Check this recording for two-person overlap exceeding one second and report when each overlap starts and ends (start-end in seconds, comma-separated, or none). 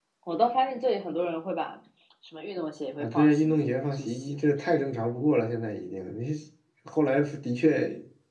3.0-4.3